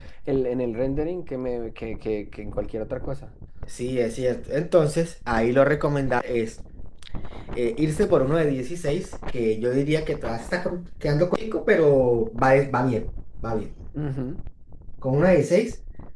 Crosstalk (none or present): none